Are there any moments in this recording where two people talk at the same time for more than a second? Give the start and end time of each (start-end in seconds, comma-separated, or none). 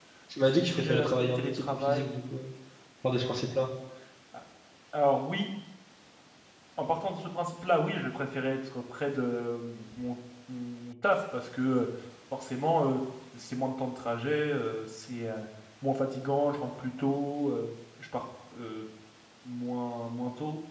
0.6-2.0